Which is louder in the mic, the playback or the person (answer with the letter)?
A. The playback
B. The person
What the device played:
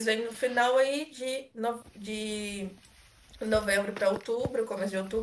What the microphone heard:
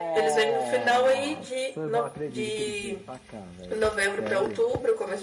A